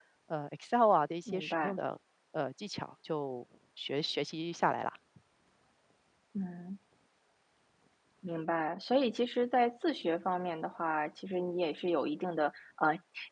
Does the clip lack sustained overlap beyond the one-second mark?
Yes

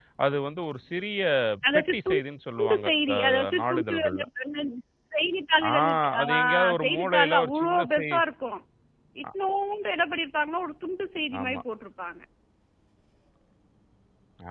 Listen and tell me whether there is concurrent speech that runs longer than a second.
Yes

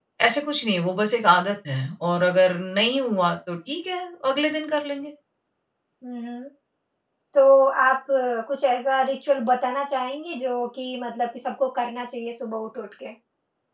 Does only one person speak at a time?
Yes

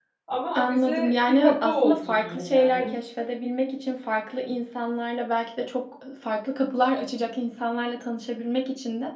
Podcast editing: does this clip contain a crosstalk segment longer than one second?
Yes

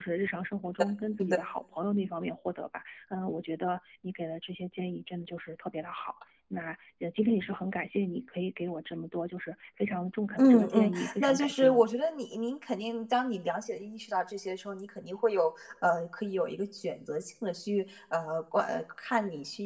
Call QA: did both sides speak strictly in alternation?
No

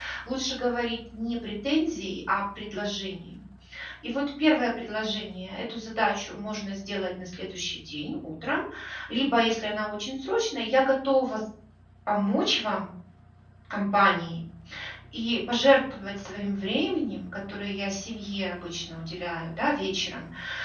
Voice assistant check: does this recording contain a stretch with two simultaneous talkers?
No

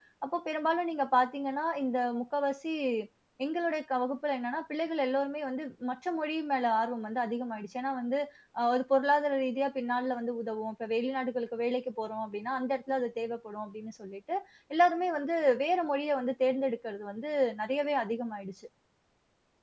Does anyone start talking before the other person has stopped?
No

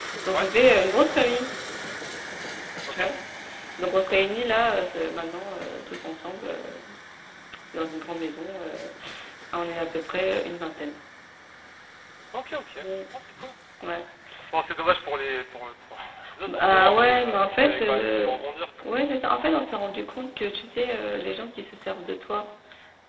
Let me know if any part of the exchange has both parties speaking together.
Yes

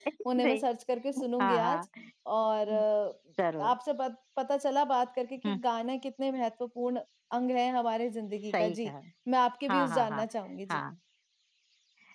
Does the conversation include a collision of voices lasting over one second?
No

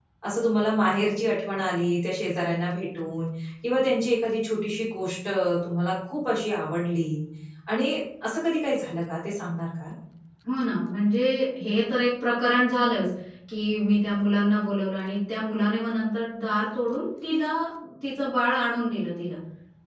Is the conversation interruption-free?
Yes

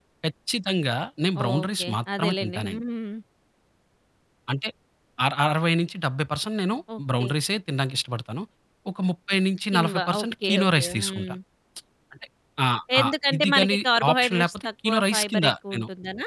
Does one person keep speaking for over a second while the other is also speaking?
Yes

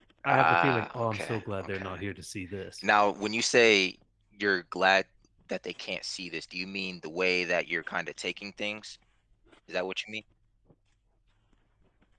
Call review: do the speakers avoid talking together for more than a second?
No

